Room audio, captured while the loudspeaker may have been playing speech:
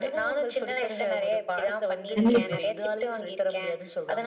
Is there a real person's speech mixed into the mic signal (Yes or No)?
Yes